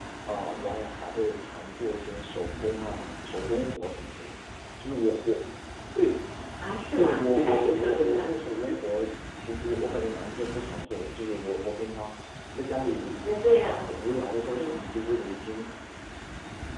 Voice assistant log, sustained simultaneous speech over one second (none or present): present